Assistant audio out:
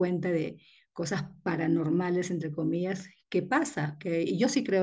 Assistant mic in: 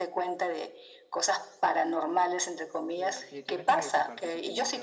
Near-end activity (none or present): present